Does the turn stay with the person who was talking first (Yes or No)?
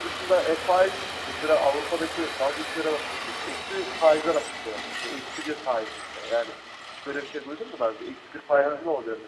Yes